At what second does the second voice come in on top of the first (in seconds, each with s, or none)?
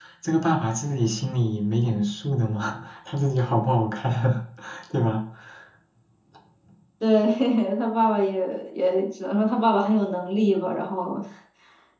none